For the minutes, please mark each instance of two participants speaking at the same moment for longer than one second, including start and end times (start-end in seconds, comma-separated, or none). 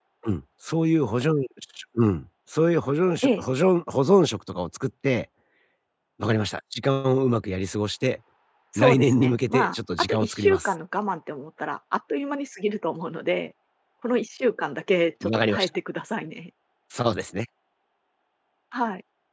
8.8-10.7